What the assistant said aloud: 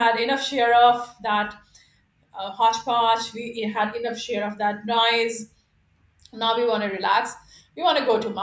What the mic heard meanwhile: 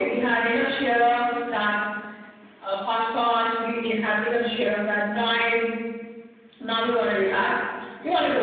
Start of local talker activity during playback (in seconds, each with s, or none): none